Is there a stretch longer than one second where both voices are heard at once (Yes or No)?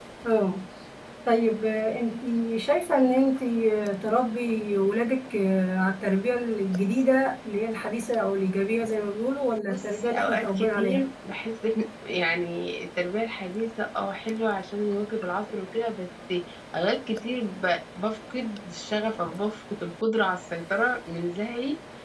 Yes